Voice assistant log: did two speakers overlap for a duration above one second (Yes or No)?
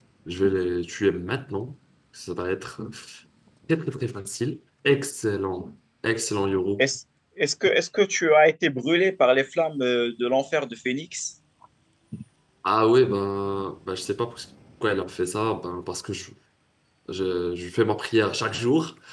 No